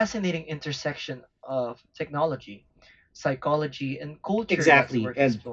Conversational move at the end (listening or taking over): taking over